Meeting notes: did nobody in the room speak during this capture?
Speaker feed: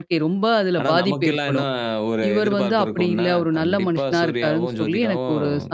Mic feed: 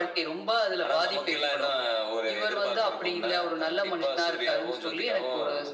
Yes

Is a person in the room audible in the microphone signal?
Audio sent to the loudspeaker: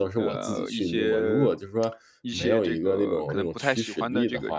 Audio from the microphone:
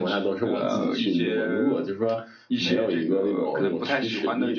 No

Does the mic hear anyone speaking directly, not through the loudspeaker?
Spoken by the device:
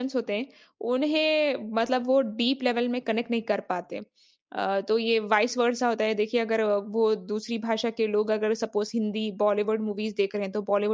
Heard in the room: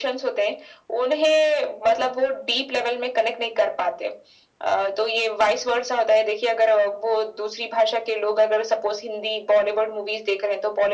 No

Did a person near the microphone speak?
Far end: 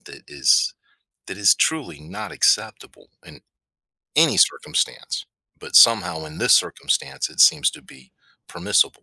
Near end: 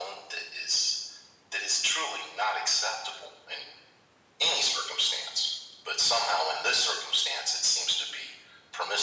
No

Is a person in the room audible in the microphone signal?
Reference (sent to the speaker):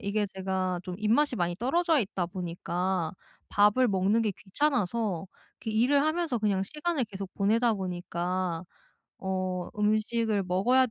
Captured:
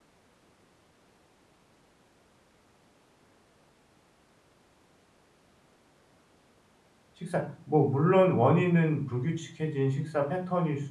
Yes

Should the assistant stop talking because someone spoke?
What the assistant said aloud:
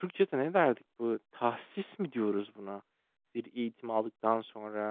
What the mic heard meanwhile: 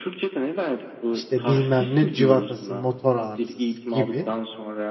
Yes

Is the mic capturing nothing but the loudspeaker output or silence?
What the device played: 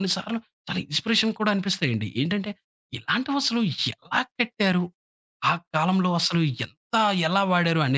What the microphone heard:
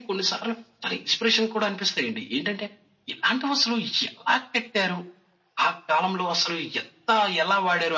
Yes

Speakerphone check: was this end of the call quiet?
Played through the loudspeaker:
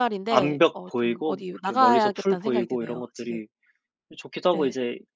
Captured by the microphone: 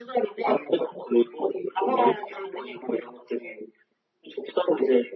Yes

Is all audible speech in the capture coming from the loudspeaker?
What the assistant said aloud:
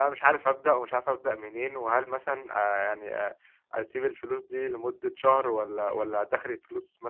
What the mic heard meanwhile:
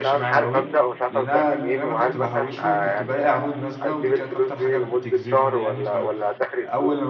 No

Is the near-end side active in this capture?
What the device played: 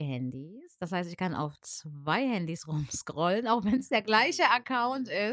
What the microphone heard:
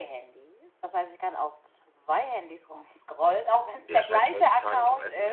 Yes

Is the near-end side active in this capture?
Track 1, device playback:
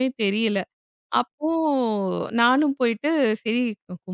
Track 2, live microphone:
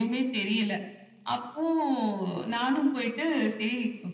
No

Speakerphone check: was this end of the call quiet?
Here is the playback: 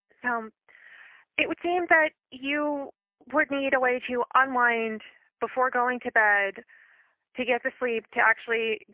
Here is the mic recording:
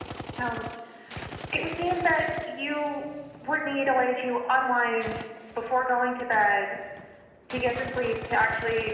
Yes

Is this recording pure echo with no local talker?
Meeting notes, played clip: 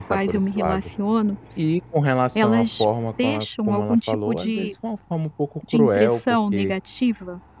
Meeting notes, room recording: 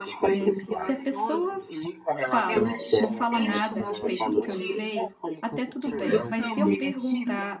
No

